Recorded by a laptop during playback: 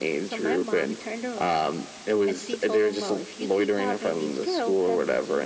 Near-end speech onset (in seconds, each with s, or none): none